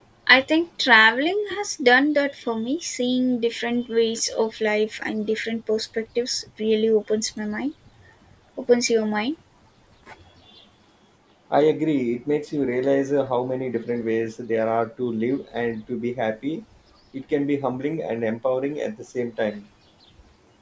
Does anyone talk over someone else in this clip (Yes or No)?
No